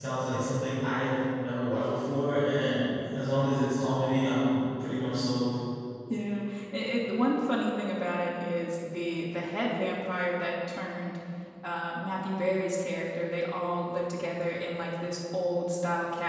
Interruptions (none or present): none